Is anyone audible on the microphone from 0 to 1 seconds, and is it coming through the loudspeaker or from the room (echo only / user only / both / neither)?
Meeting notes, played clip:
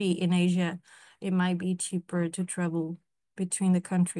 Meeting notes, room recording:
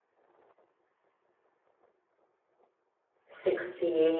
neither